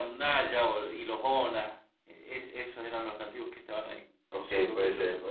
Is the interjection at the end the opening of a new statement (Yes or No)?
Yes